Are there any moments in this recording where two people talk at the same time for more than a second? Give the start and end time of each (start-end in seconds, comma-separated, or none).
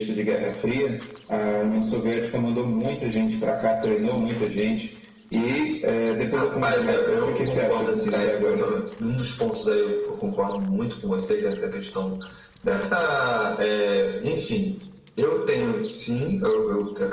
6.3-8.7